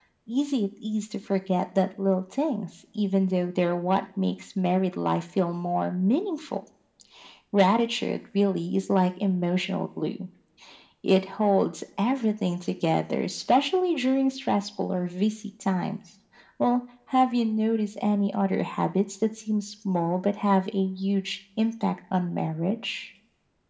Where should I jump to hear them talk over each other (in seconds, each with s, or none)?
none